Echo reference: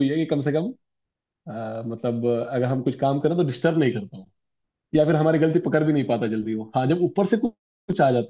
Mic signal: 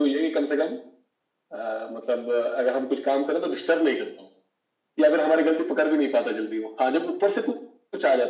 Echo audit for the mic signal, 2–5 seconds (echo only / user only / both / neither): echo only